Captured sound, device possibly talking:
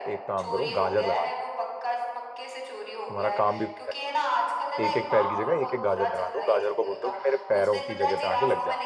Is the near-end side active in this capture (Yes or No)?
Yes